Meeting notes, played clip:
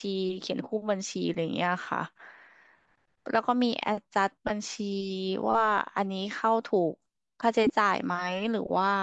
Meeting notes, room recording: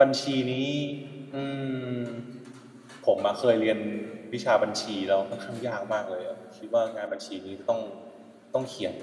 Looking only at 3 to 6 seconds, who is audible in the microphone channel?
user only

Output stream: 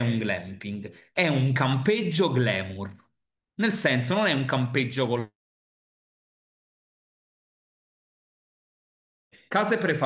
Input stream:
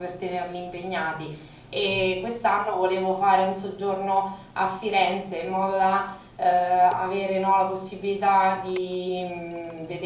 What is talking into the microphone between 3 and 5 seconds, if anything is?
user only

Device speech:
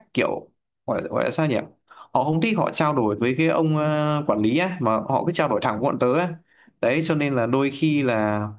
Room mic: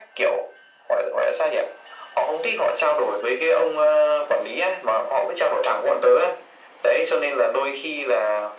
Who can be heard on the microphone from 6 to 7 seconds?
echo only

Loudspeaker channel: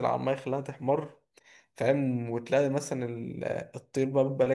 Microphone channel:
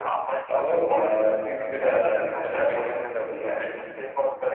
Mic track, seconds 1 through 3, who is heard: both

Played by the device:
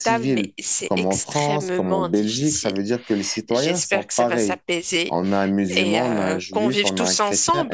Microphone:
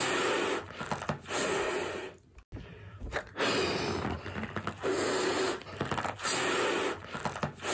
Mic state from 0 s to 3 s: neither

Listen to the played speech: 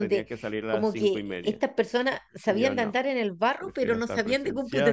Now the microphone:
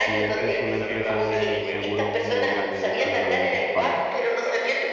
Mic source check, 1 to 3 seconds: both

